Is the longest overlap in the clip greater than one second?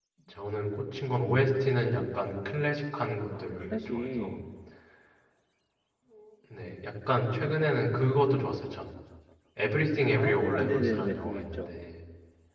Yes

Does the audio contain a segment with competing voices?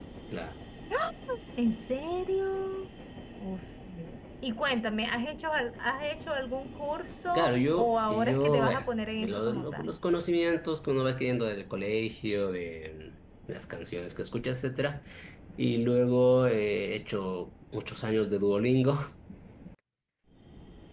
Yes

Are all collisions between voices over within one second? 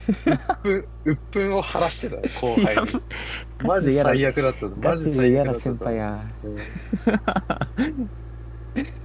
No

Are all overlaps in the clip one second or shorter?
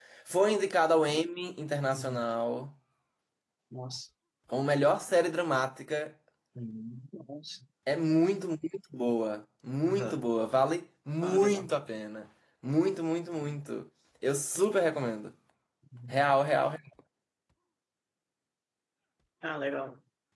Yes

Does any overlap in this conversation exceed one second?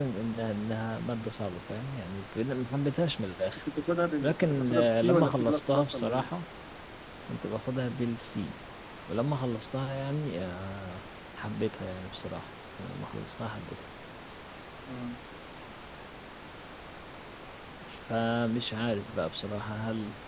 Yes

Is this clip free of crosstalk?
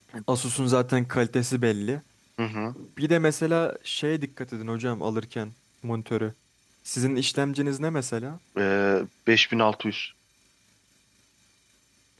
Yes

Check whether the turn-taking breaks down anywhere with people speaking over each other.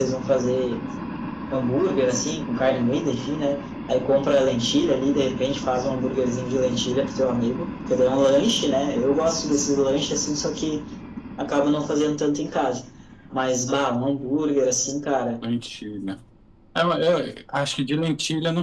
No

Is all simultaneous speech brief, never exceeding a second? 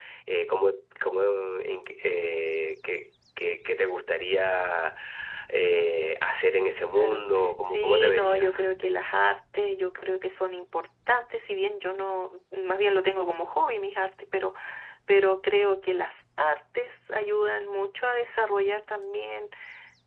No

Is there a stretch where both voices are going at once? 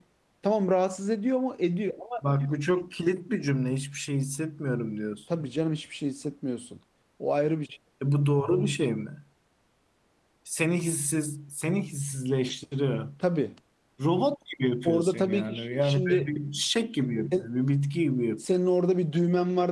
Yes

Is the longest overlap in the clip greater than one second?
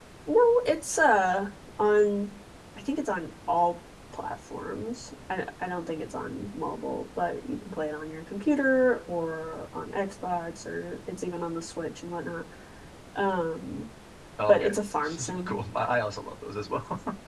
No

